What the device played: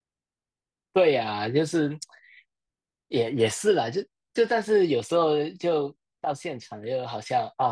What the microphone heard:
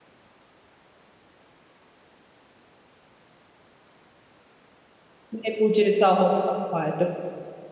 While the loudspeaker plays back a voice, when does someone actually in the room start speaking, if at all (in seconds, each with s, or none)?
5.3 s